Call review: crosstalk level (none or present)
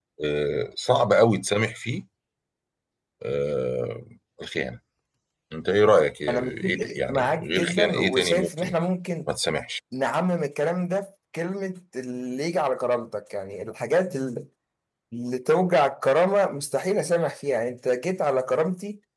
present